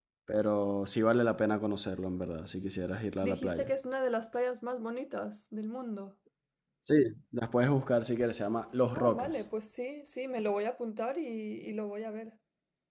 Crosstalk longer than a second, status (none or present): none